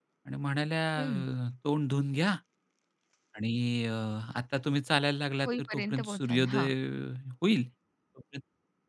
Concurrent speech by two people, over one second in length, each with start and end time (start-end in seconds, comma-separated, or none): 5.4-6.7